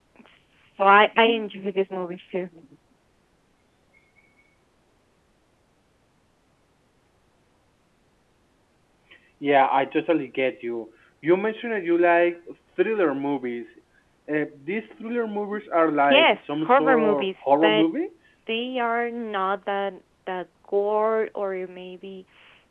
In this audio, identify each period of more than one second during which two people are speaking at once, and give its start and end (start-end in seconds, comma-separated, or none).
16.1-17.9